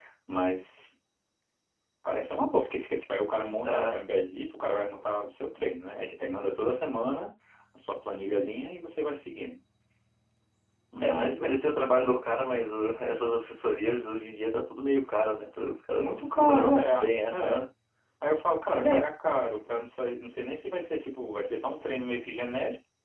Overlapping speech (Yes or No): Yes